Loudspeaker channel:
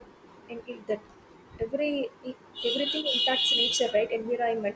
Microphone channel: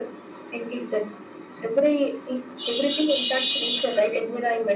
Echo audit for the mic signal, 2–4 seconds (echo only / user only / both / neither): echo only